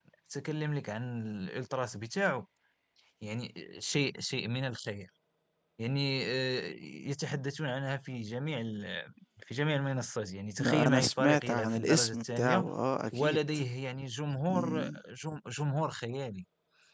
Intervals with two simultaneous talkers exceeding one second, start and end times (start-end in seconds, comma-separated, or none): 10.6-12.7